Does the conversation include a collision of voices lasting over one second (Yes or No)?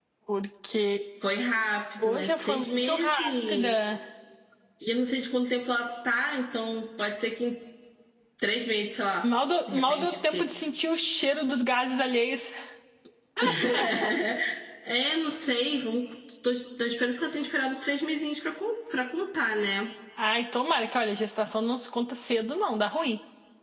Yes